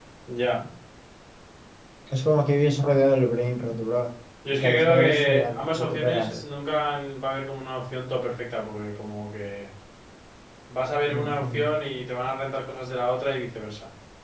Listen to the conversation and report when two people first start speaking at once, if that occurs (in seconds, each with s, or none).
4.5 s